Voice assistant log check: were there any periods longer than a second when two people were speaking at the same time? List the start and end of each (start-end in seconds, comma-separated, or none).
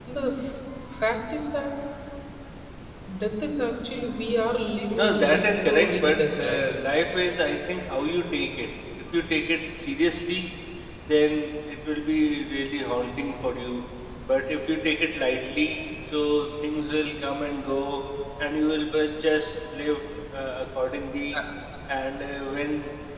5.0-6.6